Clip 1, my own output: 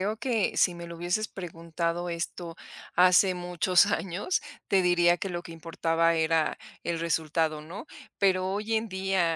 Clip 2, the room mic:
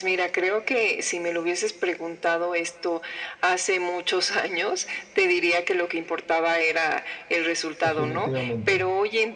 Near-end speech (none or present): present